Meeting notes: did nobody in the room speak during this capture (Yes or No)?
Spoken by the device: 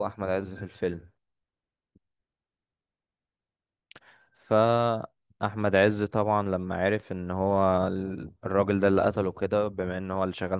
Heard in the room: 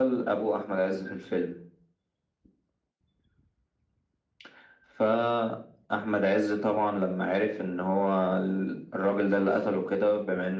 Yes